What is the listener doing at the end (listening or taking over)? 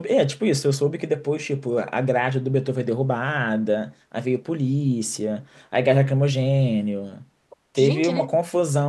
listening